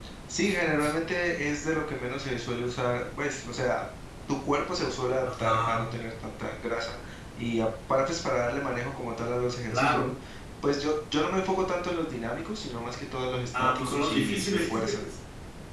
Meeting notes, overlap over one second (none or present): present